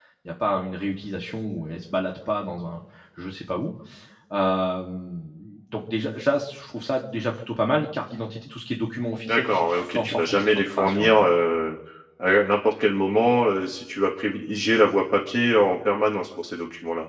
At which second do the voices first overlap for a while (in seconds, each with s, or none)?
9.3 s